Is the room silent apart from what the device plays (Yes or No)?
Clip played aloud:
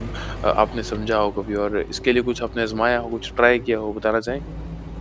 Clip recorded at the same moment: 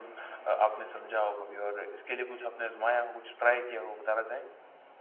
Yes